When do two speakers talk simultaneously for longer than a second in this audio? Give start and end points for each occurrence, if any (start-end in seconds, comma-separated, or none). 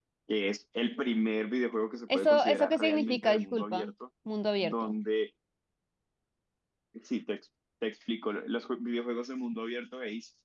2.1-3.9